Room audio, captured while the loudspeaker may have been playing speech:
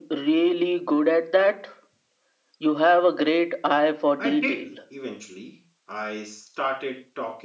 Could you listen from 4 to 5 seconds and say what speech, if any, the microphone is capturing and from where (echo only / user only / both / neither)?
both